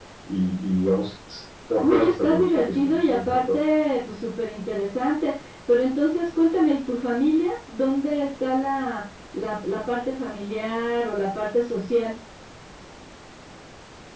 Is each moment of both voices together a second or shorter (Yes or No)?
No